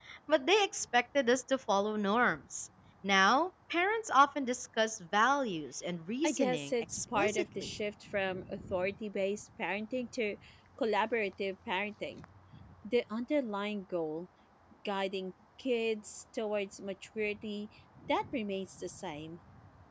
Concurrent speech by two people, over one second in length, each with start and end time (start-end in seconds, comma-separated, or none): 6.2-7.7